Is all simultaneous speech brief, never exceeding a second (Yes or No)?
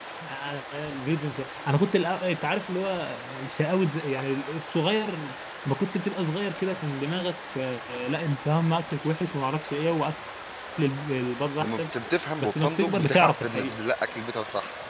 No